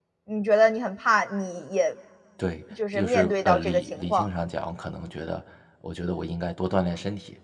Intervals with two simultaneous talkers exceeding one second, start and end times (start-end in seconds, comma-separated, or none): 2.9-4.3